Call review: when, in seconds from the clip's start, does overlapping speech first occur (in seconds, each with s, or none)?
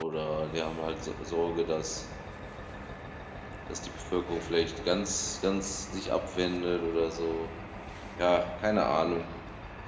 none